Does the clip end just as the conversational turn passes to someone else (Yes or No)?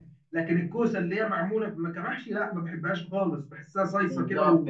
Yes